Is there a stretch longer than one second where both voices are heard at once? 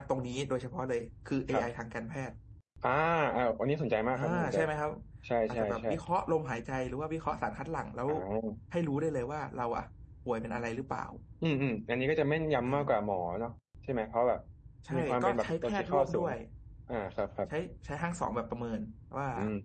Yes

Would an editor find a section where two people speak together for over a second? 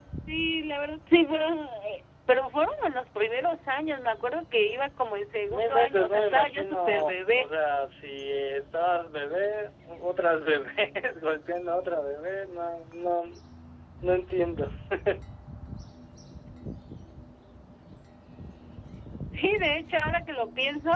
Yes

